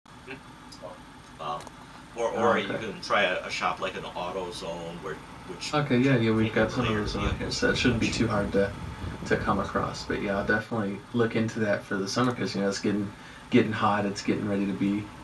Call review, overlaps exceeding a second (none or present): present